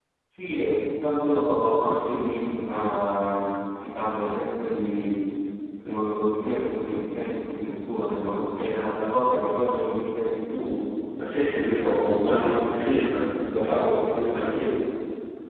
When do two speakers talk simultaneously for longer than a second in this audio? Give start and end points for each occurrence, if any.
11.2-12.6

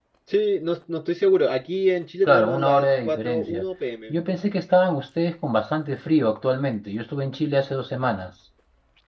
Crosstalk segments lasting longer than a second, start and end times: 2.2-3.6

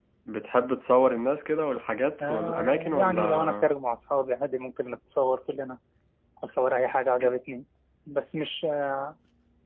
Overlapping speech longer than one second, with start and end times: 2.2-3.7

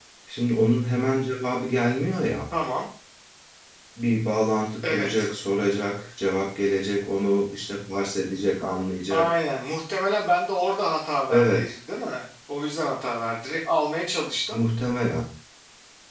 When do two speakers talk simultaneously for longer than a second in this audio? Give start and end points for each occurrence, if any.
none

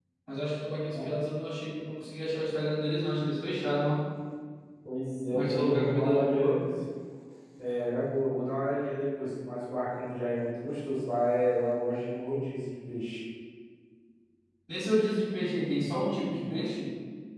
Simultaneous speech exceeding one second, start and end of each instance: 5.3-6.6

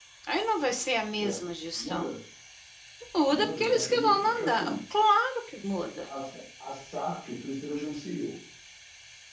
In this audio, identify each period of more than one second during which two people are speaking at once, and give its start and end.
3.3-4.8

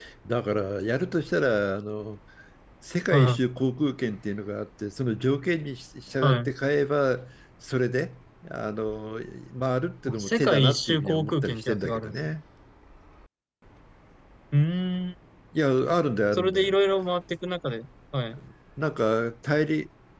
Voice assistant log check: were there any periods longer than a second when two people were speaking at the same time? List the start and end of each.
10.2-12.3

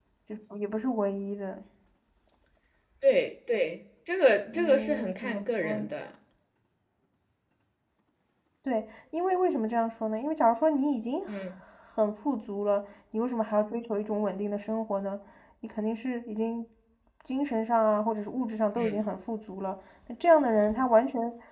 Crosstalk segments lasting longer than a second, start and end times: 4.5-5.9

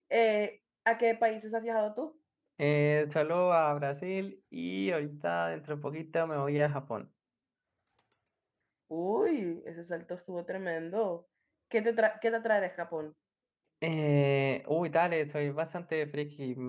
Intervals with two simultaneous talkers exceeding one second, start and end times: none

